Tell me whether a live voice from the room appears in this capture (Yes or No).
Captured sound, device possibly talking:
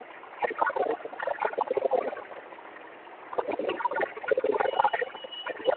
No